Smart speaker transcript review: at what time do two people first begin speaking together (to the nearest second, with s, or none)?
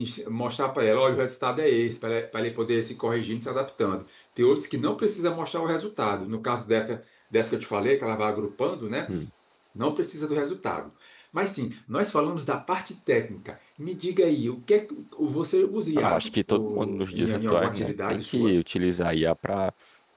16 s